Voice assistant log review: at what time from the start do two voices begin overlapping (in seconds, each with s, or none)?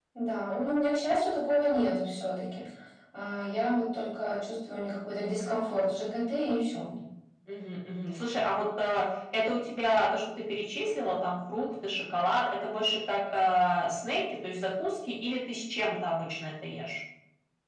none